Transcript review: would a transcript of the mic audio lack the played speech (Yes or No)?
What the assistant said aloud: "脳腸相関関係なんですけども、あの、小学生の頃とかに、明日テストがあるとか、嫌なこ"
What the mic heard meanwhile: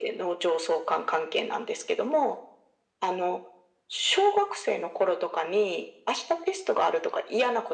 No